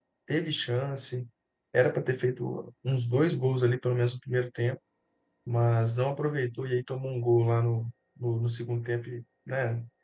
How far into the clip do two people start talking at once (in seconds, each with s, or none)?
none